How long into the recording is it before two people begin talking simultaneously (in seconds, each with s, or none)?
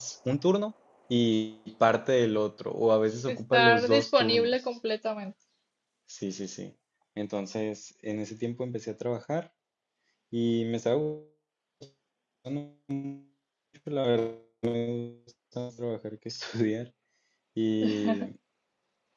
3.3 s